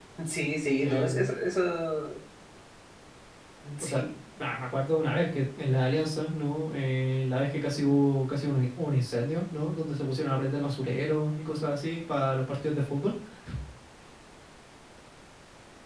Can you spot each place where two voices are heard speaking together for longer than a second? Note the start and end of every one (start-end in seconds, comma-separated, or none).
none